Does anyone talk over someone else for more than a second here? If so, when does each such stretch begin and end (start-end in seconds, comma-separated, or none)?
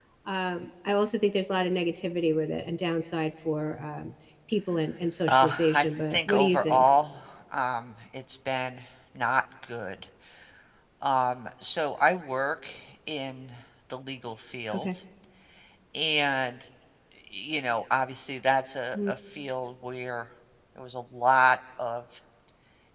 5.3-6.9